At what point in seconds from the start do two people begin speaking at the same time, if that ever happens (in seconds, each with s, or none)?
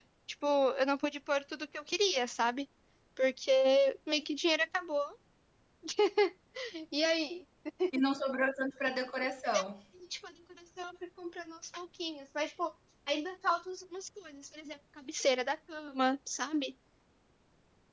none